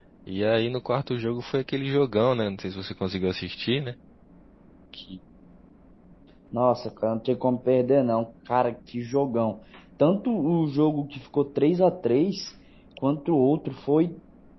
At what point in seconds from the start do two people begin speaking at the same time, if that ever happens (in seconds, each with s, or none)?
none